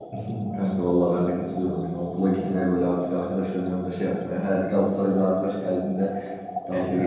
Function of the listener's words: listening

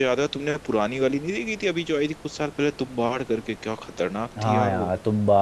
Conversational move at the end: taking over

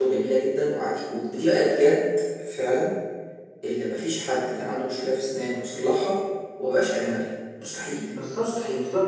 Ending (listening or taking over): taking over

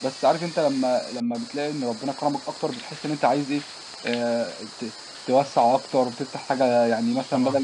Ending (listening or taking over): listening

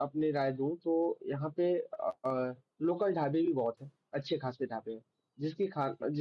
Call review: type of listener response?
listening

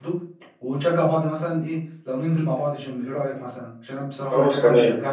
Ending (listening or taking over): taking over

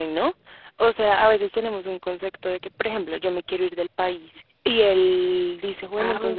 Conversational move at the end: listening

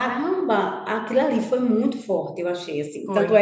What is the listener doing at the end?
listening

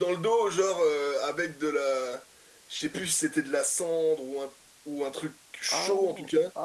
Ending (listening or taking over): taking over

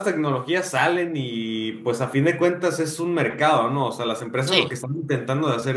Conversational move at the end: listening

